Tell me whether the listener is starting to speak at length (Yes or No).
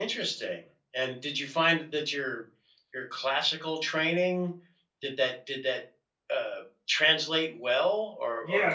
Yes